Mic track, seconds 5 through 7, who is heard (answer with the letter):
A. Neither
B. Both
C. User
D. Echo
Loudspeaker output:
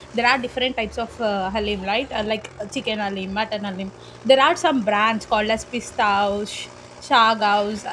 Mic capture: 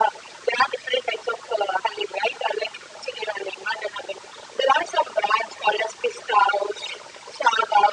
D